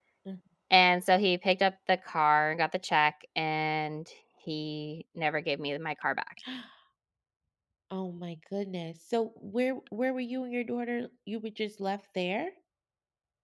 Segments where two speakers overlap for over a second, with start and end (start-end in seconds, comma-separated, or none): none